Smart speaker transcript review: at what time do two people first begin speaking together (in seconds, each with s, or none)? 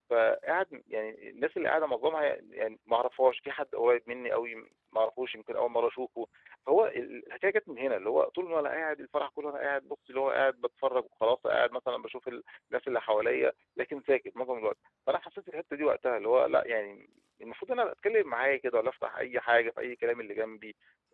none